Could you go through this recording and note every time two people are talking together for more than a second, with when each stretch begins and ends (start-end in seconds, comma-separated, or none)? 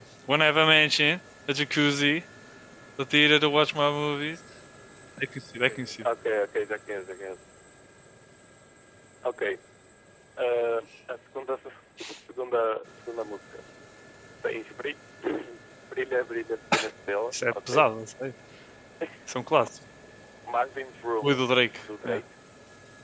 none